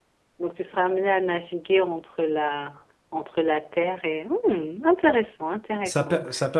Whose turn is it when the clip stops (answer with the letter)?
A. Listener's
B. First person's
A